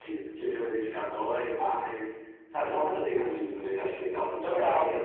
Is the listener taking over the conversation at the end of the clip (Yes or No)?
Yes